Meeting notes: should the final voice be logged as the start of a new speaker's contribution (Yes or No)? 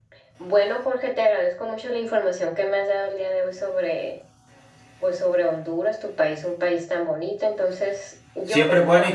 Yes